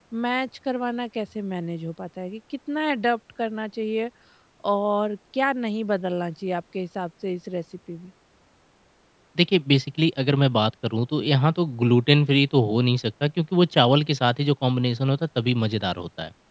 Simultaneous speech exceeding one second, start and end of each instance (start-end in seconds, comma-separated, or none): none